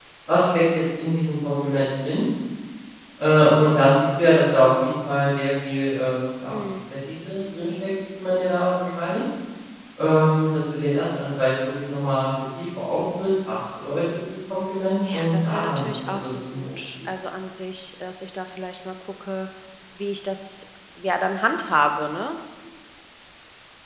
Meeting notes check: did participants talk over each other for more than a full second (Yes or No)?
Yes